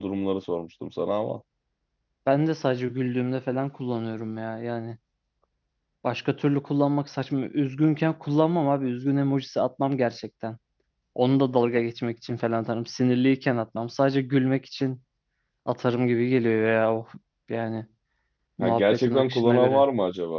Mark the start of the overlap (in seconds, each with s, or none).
18.6 s